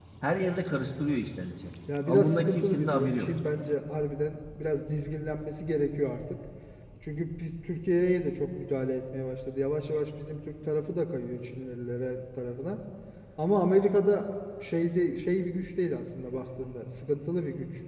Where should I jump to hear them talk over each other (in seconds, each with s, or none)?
1.9 s